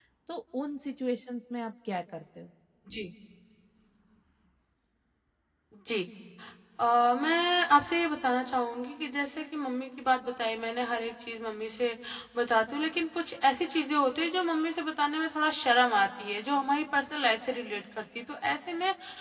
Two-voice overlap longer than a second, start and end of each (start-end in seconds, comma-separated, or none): none